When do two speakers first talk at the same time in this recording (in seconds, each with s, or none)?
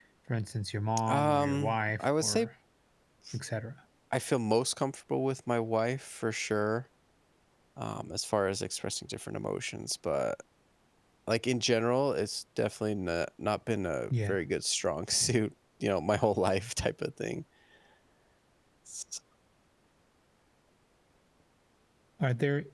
1.1 s